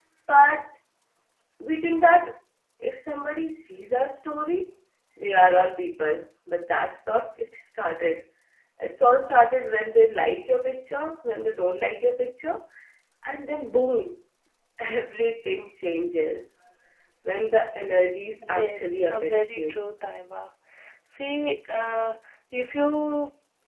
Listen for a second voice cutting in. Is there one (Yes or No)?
Yes